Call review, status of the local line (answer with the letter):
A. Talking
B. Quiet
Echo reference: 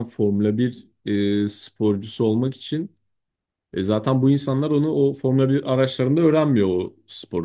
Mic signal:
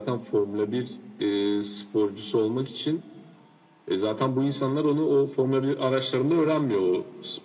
B